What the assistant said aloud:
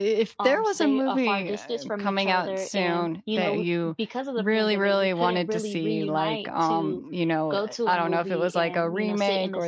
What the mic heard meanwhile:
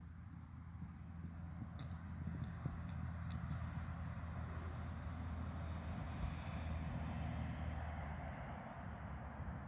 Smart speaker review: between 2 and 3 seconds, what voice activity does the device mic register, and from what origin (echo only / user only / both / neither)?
neither